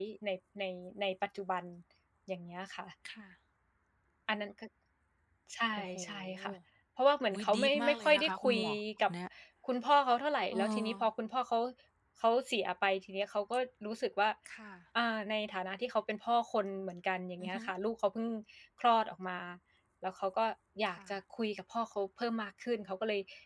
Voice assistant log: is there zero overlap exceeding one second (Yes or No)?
No